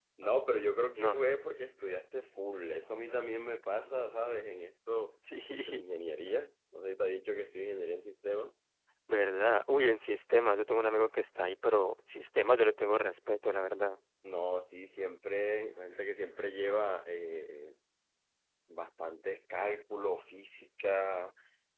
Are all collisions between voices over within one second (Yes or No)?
Yes